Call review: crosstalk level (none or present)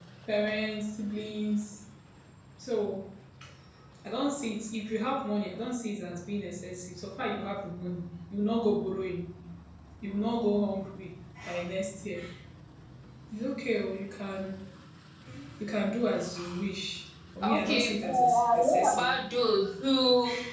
present